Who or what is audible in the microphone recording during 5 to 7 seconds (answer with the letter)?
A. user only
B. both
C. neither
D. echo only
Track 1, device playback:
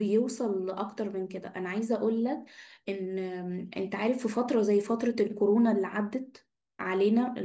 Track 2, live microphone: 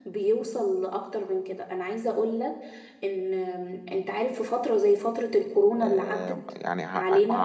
B